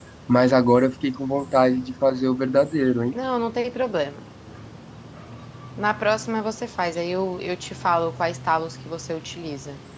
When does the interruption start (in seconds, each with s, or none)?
none